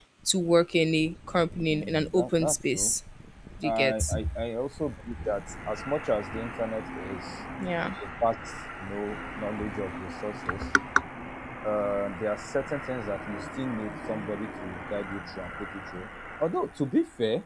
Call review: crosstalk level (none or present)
present